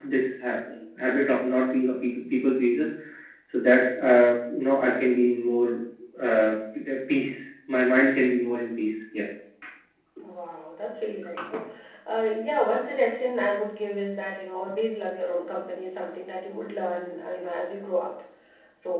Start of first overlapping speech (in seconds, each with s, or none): none